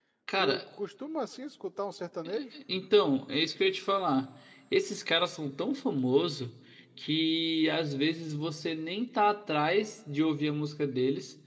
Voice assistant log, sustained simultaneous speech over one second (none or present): none